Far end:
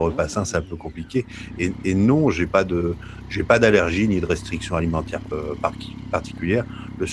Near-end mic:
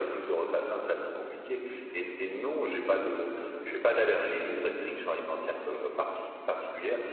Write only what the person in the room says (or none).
none